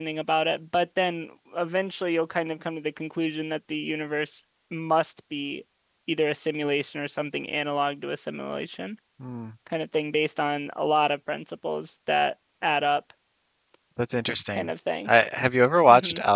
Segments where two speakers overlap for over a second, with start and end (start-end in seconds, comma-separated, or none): none